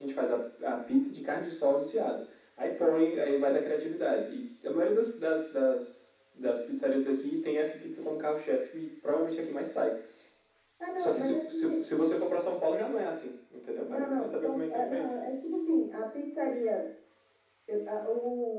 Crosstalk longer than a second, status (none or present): present